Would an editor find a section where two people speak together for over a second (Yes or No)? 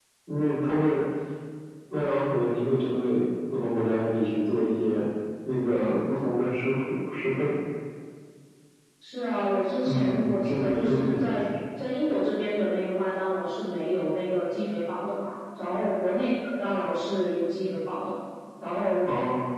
Yes